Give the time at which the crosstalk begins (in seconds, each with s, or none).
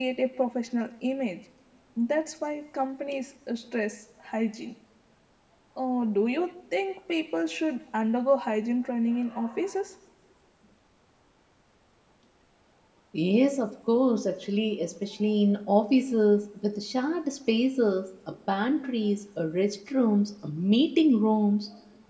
none